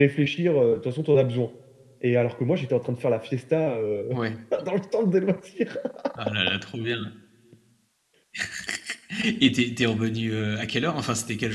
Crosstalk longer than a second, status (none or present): none